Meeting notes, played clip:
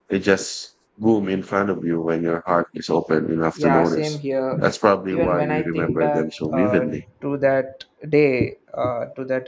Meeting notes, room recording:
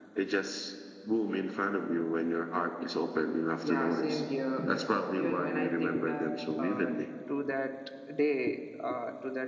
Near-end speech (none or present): none